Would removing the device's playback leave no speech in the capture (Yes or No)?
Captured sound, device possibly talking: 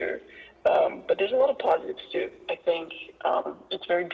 Yes